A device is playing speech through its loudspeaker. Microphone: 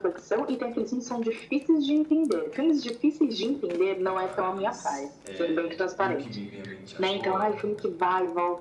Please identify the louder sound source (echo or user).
echo